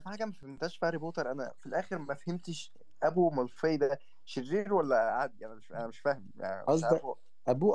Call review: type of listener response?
taking over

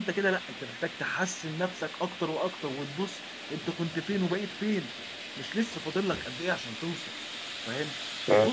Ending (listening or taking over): listening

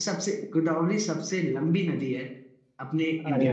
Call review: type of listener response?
taking over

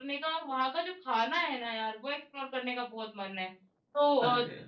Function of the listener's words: listening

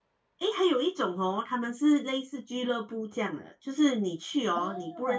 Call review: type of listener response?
listening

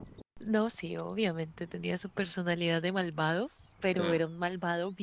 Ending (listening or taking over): listening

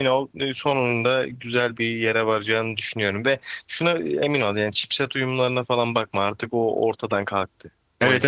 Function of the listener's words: taking over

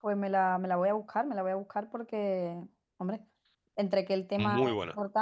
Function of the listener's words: listening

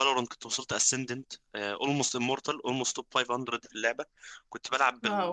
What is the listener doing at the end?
listening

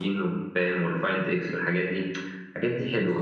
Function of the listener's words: taking over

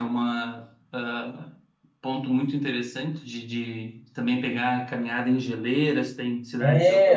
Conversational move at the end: taking over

